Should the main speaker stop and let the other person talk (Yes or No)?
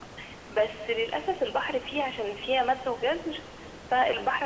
No